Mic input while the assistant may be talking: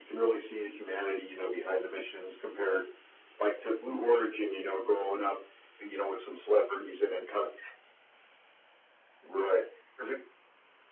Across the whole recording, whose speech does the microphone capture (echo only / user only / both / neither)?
echo only